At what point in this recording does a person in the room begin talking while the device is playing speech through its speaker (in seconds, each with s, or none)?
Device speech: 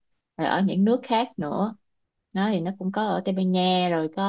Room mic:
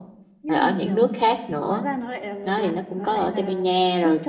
0.4 s